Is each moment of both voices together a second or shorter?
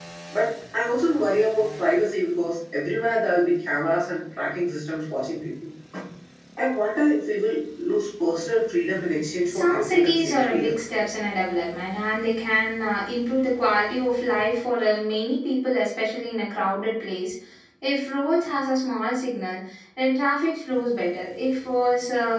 No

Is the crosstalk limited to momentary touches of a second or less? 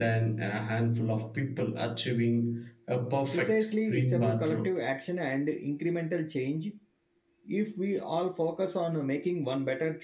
No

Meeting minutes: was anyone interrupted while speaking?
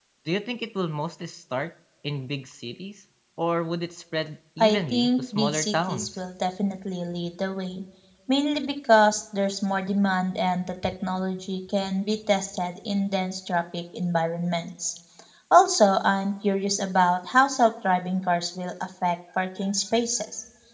Yes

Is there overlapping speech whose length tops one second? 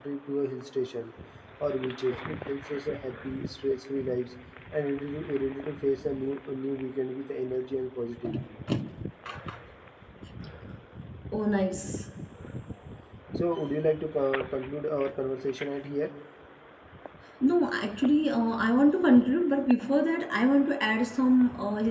No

